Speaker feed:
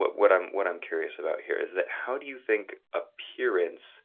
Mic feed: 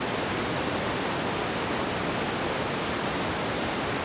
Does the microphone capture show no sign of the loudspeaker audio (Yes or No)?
Yes